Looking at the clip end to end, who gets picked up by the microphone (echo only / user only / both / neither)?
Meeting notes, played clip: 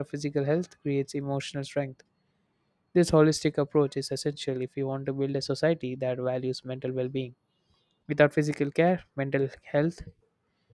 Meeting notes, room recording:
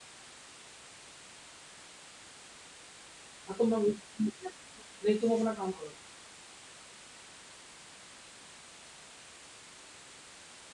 user only